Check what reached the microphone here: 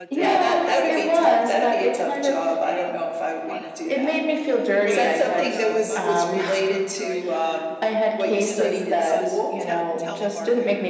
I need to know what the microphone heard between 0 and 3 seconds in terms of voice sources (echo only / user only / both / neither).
both